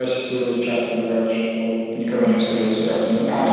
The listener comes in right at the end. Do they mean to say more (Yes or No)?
Yes